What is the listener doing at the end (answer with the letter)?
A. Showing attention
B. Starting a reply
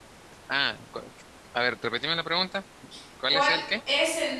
B